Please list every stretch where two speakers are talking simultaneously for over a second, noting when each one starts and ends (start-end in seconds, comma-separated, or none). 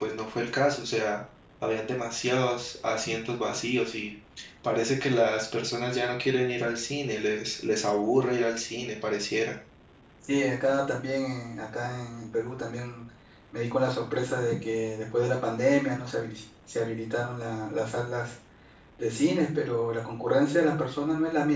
none